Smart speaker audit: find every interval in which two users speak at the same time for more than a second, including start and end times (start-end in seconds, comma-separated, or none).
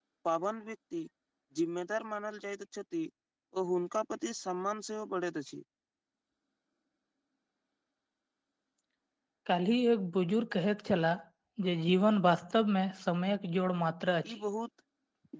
none